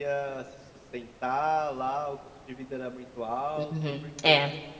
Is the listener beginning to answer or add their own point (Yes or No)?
Yes